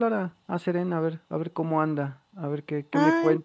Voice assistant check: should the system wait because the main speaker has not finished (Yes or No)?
Yes